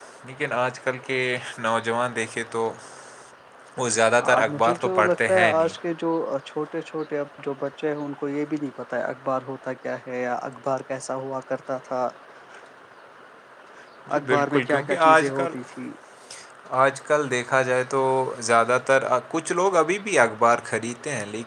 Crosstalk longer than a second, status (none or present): present